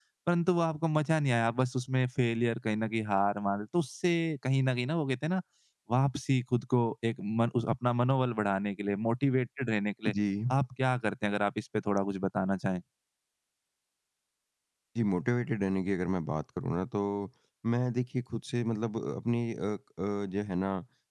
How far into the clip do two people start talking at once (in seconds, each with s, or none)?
none